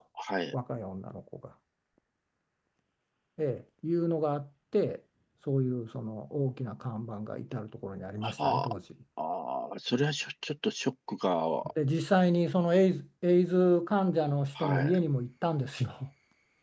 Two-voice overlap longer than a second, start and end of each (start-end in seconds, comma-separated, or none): none